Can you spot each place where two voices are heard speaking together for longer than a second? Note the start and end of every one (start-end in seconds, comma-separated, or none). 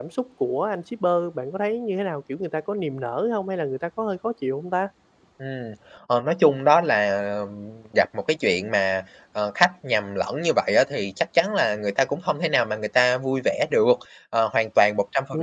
none